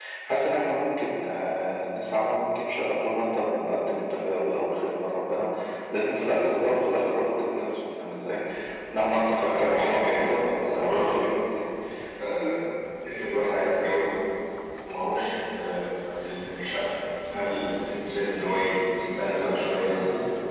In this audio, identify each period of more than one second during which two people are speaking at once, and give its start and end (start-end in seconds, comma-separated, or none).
9.4-11.1